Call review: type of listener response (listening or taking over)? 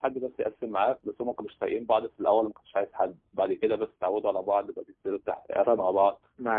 taking over